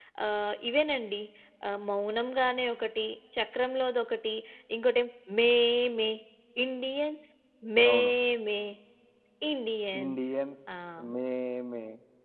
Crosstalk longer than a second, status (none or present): none